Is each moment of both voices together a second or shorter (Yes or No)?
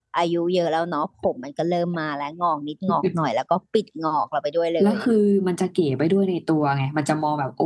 Yes